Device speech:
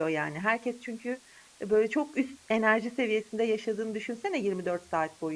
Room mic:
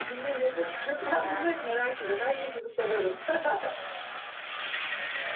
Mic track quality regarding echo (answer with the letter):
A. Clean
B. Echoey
A